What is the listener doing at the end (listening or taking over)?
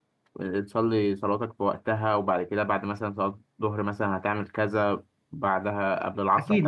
taking over